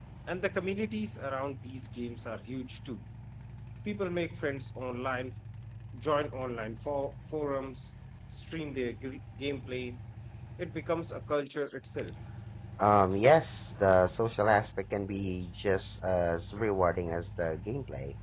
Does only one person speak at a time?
Yes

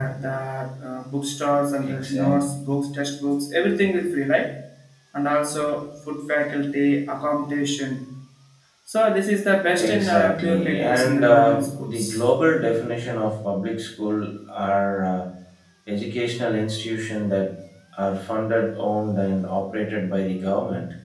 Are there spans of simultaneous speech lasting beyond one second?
Yes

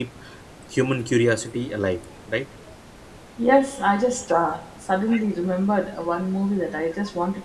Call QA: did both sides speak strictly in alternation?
Yes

